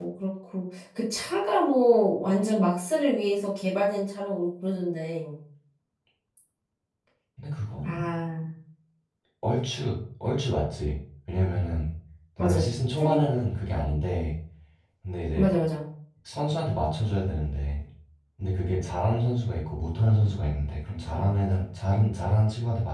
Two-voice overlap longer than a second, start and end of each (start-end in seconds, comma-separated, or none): none